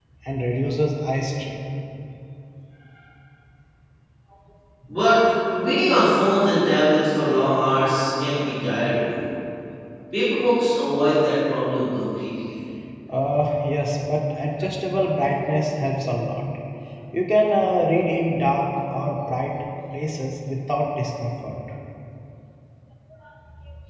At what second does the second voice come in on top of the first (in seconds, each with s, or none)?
none